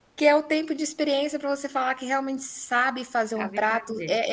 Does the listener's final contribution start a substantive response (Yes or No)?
No